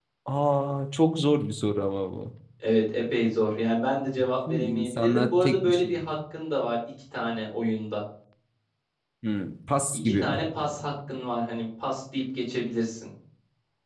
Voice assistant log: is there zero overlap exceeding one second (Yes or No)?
No